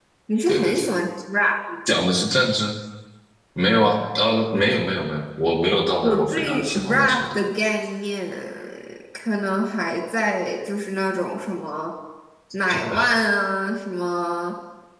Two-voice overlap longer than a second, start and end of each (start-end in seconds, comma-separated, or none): 6.0-7.4